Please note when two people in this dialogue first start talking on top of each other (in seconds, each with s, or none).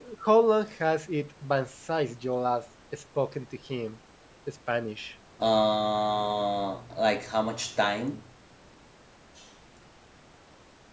none